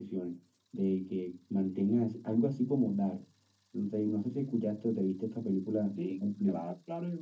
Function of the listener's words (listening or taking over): taking over